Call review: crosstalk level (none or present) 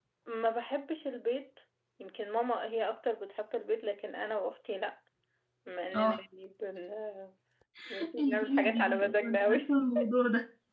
present